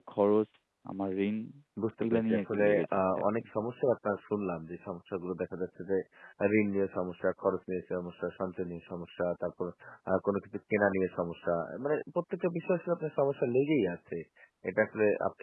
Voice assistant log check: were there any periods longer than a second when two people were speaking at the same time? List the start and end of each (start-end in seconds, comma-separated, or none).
2.0-3.4